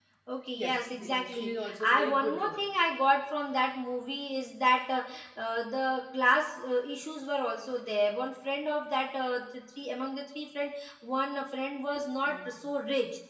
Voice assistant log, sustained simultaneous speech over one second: present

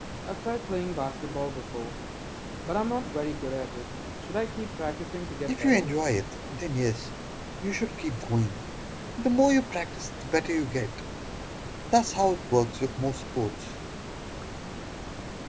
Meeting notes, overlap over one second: none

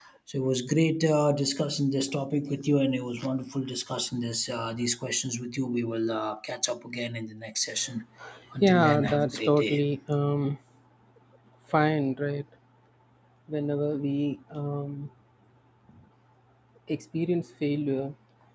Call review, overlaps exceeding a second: present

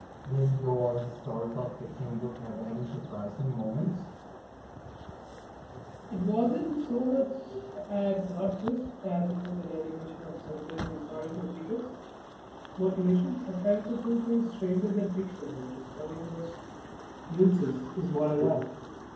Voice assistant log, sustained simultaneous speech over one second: none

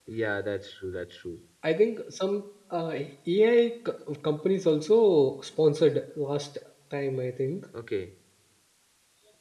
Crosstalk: none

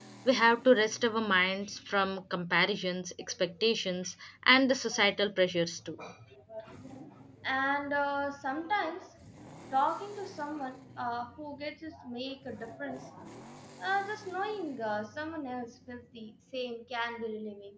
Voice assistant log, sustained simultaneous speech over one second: none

